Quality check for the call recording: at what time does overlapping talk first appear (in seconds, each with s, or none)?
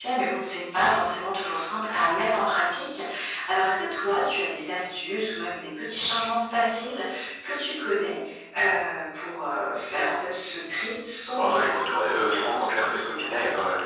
11.3 s